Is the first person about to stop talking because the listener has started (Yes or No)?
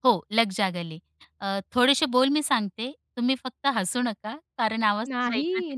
Yes